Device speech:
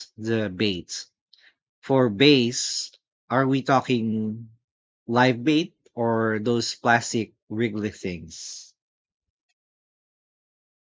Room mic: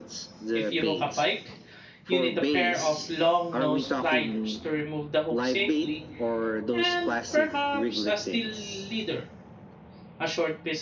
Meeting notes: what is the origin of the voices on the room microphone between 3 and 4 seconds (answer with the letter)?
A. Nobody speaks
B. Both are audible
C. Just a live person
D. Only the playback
B